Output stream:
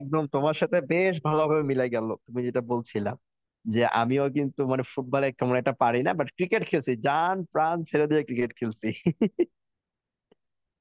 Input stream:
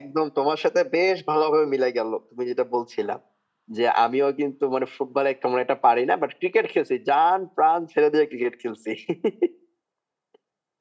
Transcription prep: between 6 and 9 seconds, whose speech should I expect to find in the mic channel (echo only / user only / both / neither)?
echo only